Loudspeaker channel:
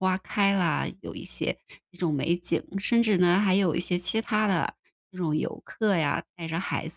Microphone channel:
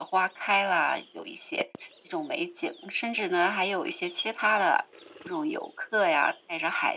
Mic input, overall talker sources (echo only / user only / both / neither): echo only